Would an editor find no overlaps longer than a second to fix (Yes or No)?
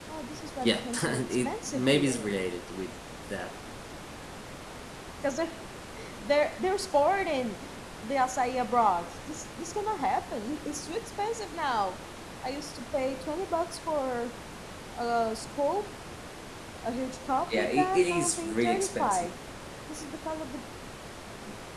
No